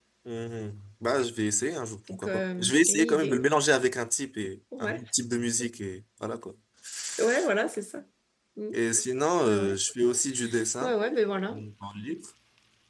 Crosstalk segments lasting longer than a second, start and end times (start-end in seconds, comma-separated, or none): 2.1-3.4